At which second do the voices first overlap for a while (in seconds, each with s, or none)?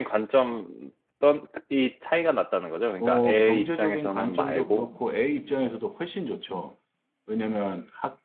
3.0 s